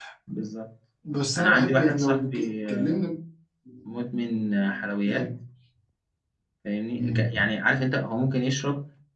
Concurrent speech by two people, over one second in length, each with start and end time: 1.4-3.0

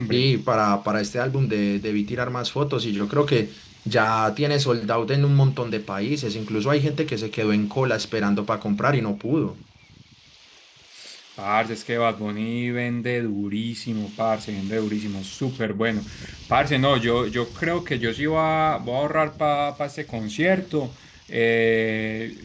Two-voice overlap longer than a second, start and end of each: none

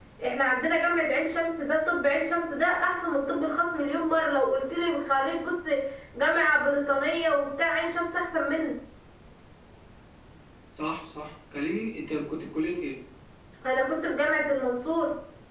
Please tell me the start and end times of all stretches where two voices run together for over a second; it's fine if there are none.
none

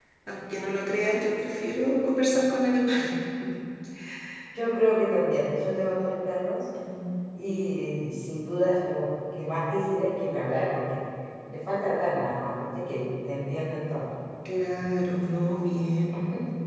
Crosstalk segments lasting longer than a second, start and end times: none

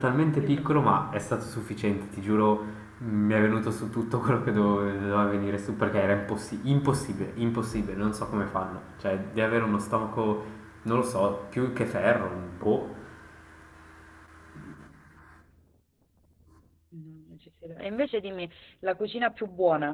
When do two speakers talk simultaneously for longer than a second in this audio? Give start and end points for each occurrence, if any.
none

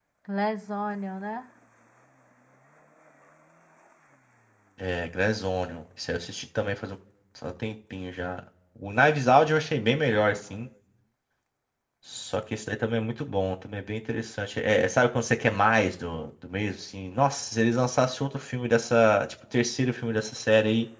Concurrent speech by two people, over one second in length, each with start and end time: none

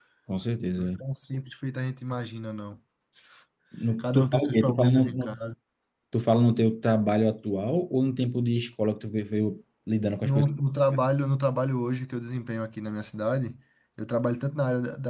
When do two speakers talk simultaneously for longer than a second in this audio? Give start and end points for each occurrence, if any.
4.0-5.4

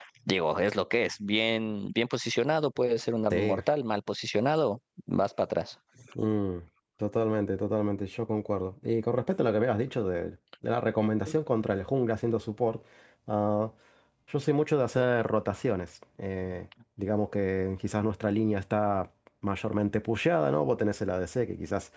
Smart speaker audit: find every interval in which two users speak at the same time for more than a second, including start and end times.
none

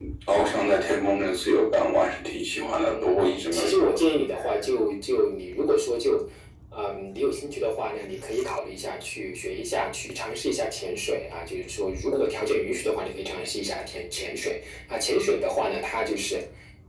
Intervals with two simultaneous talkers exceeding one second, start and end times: 2.5-3.9

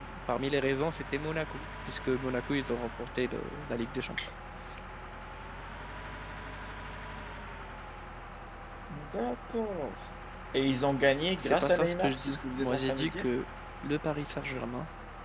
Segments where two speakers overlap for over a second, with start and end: 11.4-13.2

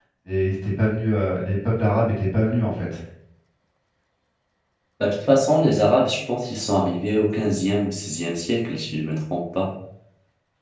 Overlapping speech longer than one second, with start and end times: none

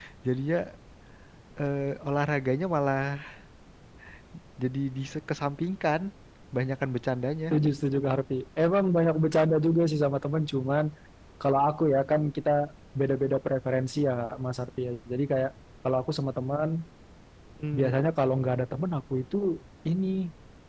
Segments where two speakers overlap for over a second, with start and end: none

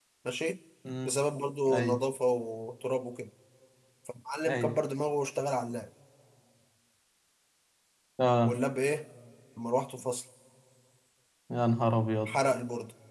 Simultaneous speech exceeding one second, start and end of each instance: none

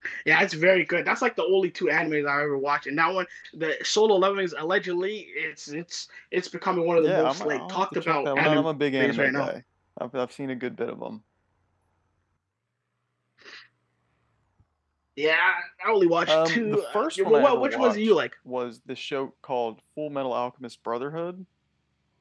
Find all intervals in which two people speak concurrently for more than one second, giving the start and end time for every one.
7.0-8.7, 16.3-18.1

